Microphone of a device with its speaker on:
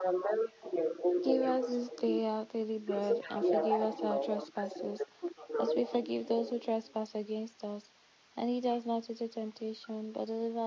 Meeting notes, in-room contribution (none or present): present